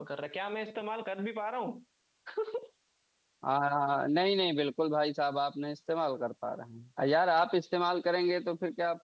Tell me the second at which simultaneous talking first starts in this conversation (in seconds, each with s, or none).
none